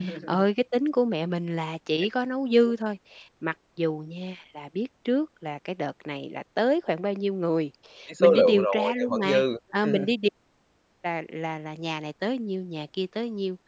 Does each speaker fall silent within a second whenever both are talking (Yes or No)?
No